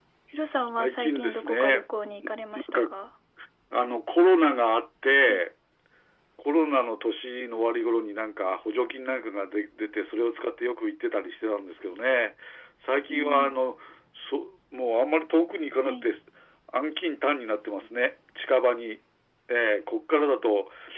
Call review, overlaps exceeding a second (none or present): present